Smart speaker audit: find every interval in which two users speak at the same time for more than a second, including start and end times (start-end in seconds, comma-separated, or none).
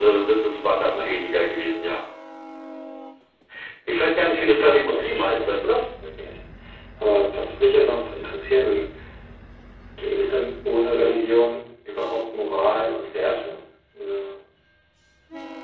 4.2-5.5